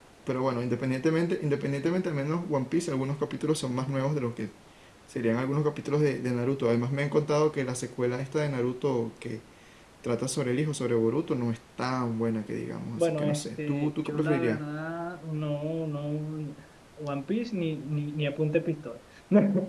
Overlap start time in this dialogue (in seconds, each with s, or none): 13.0 s